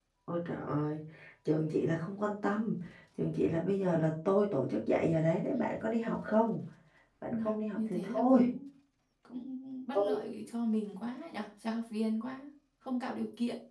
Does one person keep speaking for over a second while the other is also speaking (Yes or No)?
Yes